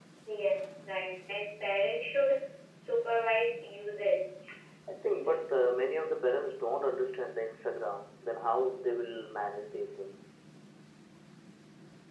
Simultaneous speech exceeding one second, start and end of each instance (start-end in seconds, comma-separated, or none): none